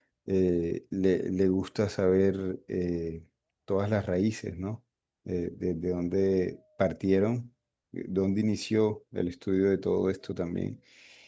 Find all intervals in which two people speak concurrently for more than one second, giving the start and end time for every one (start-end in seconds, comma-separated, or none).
none